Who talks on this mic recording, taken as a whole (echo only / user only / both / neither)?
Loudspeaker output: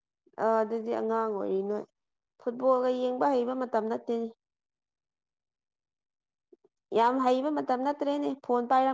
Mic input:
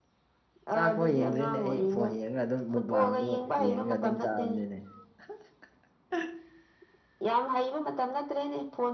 both